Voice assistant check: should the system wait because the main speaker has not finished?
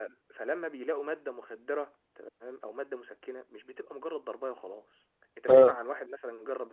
Yes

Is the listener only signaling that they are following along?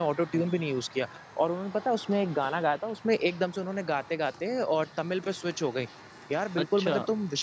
Yes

